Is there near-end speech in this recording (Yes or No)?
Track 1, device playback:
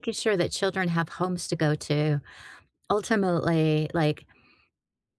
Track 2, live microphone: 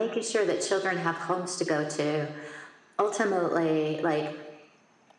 No